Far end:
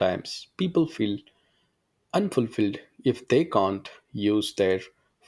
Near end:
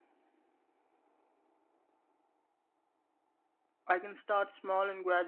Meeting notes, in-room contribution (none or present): present